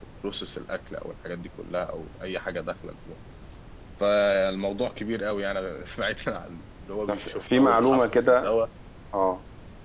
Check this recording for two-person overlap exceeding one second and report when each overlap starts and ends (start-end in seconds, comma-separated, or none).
7.1-8.6